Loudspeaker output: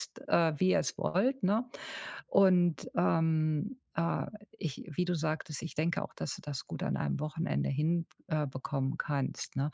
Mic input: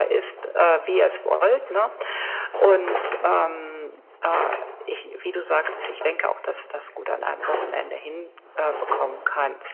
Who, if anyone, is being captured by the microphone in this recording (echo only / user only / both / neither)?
echo only